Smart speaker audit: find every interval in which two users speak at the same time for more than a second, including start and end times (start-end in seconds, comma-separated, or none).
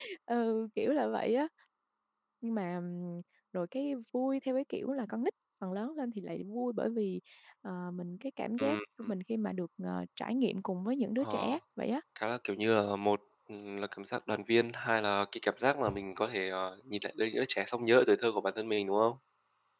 none